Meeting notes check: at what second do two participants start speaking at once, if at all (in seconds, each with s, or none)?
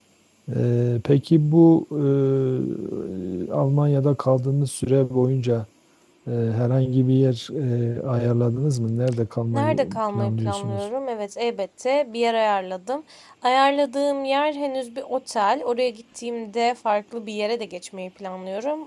9.5 s